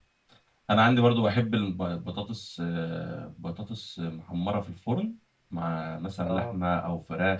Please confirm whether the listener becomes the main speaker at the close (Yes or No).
No